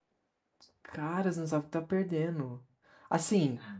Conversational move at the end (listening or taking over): listening